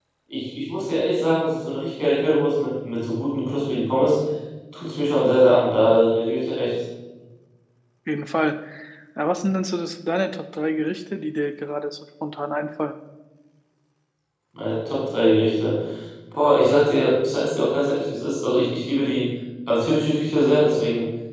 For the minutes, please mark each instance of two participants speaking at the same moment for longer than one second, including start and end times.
none

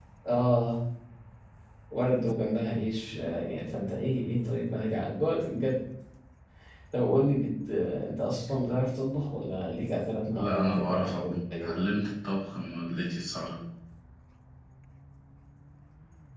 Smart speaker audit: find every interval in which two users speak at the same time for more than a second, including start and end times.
10.3-11.8

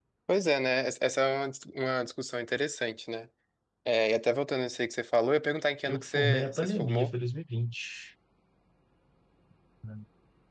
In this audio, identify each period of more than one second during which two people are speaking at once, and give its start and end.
5.9-7.1

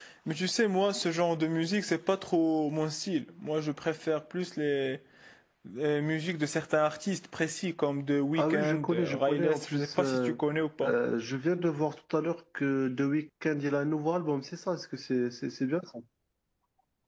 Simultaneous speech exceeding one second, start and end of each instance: 8.4-10.3

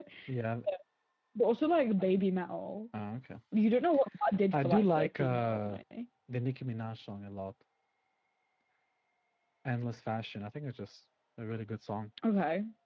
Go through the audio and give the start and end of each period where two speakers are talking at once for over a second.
4.5-5.8

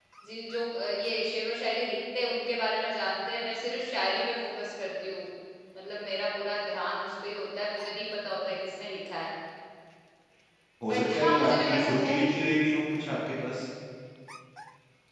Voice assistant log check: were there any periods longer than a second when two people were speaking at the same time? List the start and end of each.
10.9-12.2

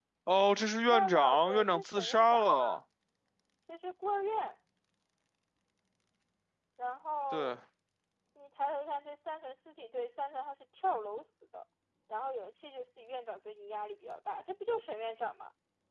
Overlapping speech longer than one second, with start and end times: 0.9-2.8

